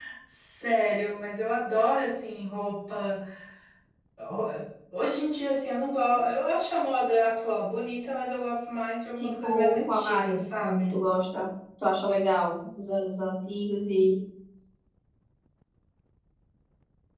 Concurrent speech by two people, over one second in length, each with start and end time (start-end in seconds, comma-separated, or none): 9.2-10.9